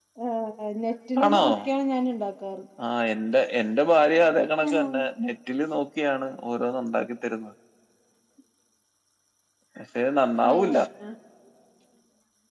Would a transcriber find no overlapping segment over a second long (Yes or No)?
Yes